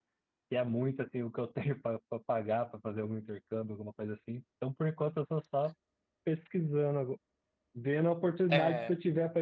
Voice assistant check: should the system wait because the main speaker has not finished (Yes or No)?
Yes